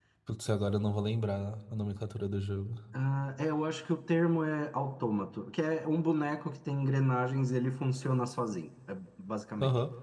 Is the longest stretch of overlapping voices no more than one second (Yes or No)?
Yes